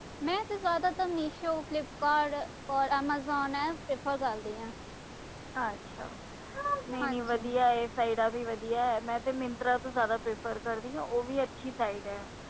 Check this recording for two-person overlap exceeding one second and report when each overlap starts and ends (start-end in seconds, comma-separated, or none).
none